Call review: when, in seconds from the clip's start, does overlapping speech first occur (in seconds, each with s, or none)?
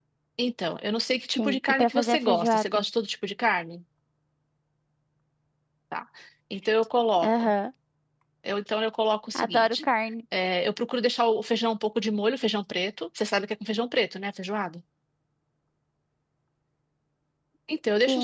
1.4 s